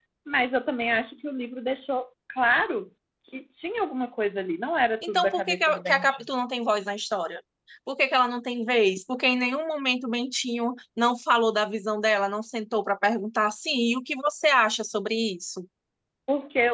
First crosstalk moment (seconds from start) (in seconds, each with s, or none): 5.0 s